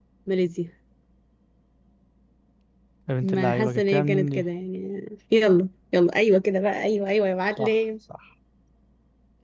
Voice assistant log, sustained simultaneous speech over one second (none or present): present